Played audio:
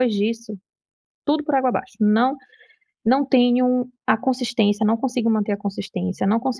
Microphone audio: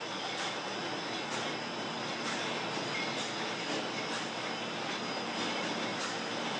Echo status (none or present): none